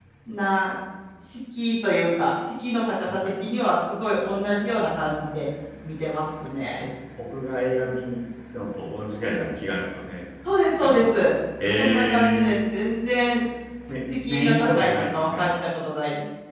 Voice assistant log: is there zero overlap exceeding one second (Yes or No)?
No